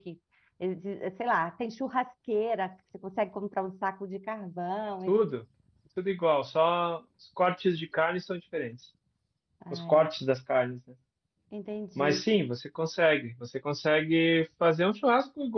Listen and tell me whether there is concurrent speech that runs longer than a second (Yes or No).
No